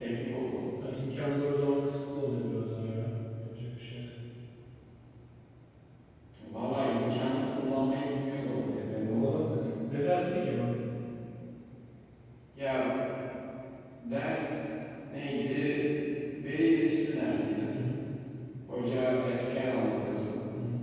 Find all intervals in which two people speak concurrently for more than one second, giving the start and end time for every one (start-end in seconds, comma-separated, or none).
none